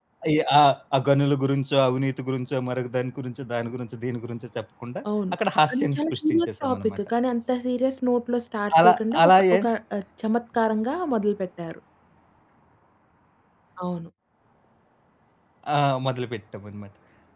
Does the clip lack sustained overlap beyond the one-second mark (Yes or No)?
No